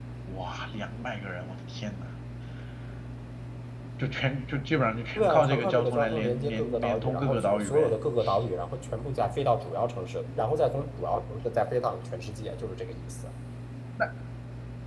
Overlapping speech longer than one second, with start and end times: 5.2-7.9

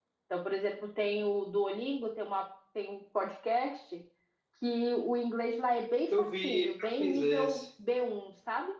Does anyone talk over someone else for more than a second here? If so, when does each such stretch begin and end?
6.1-7.6

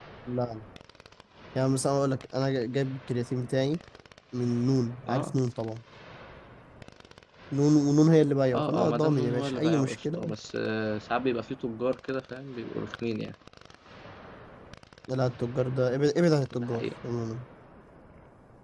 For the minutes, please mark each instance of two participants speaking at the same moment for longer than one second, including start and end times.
8.5-10.3

